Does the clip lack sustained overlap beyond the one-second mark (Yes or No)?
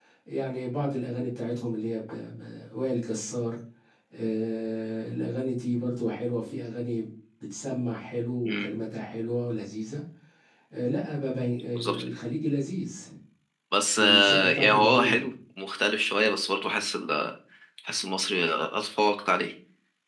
No